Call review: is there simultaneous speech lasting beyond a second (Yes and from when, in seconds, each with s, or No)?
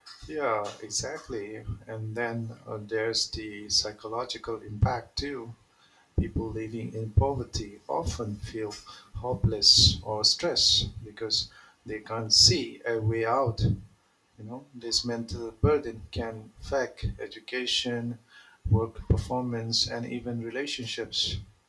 No